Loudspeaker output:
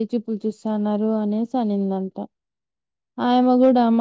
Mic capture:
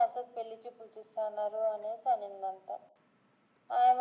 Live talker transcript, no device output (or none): none